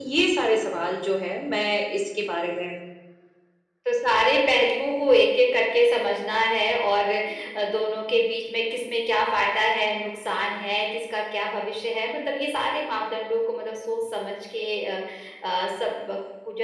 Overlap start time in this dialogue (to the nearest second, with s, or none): none